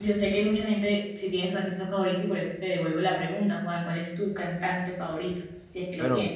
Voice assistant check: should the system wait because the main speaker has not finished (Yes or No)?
No